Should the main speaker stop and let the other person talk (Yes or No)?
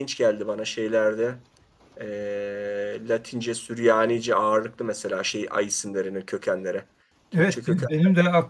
Yes